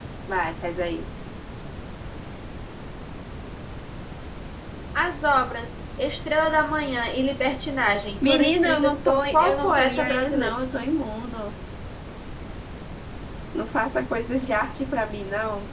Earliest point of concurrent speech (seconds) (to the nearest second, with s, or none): 8 s